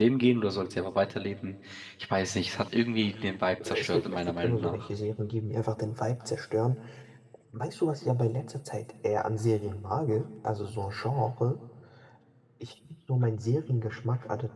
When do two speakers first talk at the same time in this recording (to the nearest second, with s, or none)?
4 s